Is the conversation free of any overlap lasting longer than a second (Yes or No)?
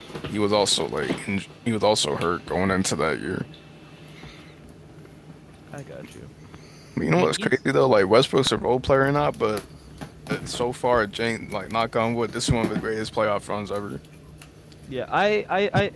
Yes